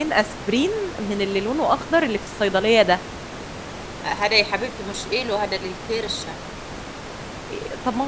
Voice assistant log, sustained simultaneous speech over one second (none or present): none